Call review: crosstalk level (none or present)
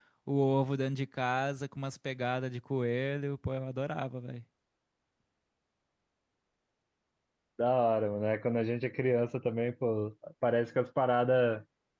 none